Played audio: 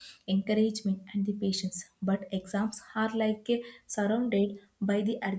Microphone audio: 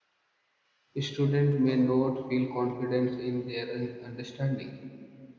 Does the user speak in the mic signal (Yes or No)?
Yes